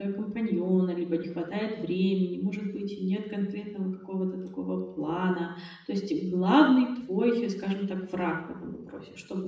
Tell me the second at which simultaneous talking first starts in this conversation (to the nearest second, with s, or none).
none